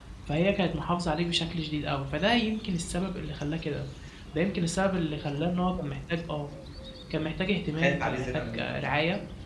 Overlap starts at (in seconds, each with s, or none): 7.4 s